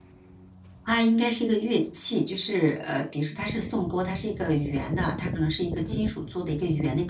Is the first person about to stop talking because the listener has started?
No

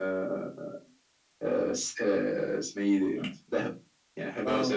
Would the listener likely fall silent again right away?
Yes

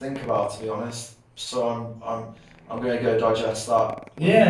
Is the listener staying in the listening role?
No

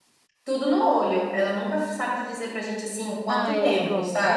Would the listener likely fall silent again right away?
No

